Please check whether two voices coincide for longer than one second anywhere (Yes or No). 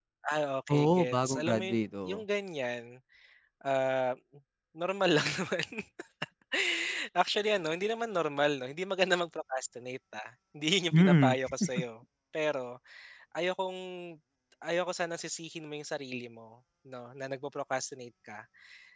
Yes